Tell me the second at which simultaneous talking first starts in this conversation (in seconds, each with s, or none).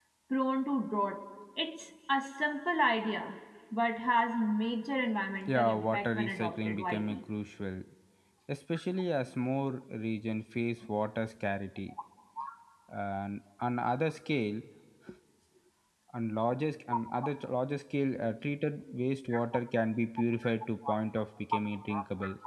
5.5 s